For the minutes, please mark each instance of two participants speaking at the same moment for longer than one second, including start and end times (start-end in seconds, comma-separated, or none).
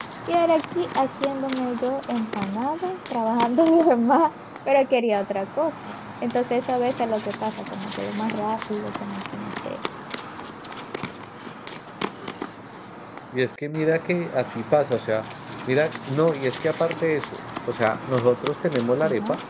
none